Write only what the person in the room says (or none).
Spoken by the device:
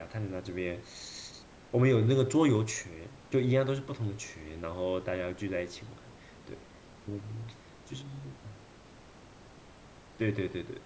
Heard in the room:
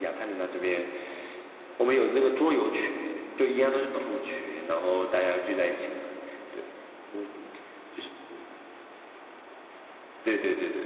none